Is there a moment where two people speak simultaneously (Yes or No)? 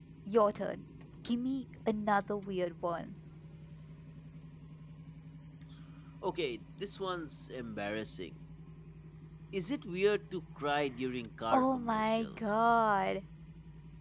Yes